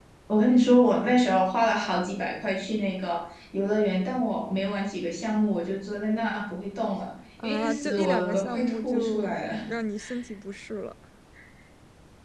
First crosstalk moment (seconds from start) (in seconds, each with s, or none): 7.4 s